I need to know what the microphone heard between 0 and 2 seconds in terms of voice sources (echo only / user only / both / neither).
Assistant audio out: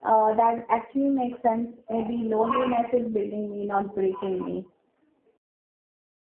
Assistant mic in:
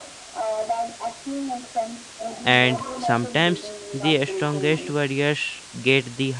echo only